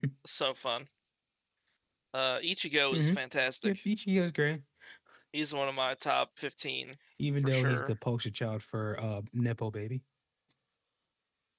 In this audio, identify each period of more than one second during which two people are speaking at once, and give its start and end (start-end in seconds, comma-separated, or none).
none